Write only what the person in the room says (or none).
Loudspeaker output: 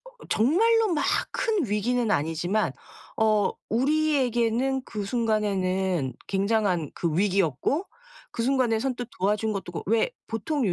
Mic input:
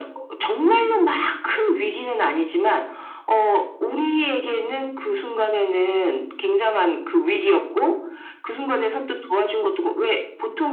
none